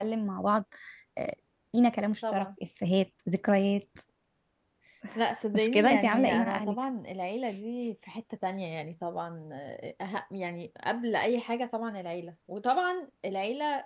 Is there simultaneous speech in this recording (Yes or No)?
Yes